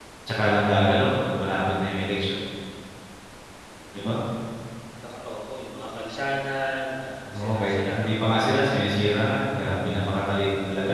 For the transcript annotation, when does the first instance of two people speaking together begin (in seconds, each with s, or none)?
7.3 s